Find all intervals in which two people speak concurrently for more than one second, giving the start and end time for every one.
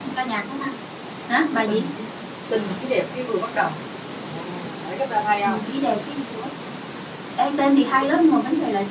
none

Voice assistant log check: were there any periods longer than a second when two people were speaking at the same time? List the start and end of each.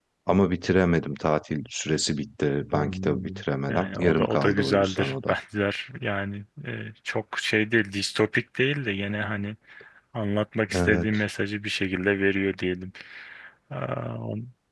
2.7-5.3

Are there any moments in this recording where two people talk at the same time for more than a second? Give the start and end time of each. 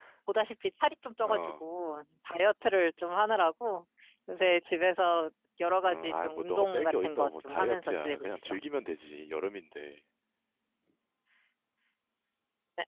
5.8-8.6

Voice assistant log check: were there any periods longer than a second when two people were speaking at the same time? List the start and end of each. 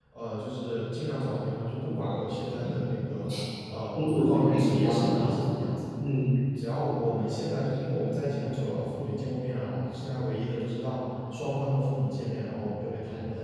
4.0-5.2

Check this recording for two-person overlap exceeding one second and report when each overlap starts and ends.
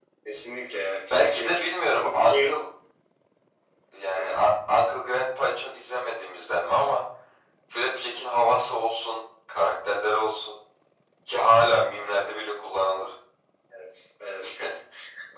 1.1-2.4

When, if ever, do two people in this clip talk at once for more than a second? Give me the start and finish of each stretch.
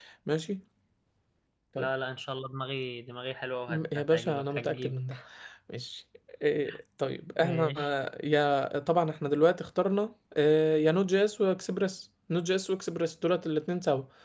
3.7-5.0

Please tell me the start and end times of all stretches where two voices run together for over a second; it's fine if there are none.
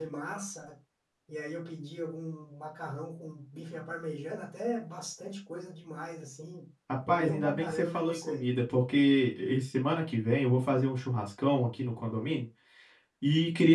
7.1-8.4

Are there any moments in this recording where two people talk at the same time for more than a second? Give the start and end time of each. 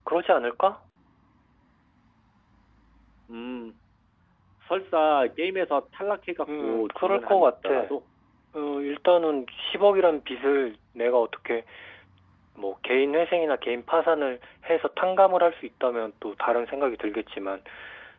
6.6-7.9

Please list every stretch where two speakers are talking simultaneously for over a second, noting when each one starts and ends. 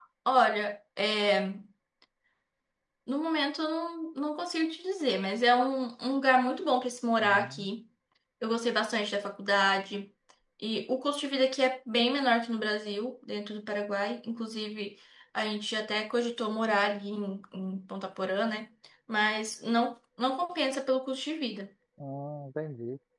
none

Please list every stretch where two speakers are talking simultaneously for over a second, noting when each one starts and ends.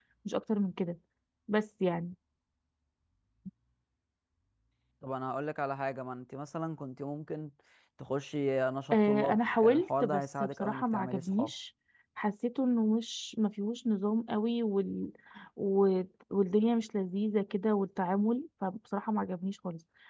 8.9-11.5

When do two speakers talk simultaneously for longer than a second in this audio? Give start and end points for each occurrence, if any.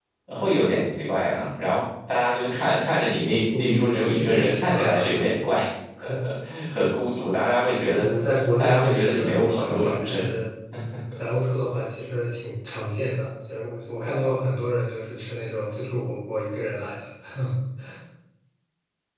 3.6-5.1, 8.6-10.2

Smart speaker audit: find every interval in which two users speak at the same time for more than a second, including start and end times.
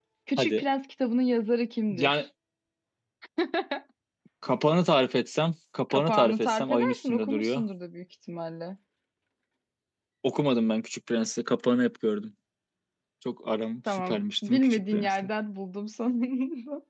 5.9-7.6, 13.9-15.1

